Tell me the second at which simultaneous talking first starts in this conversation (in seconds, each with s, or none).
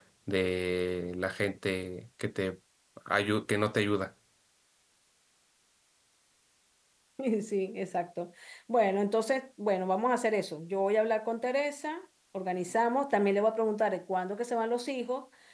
none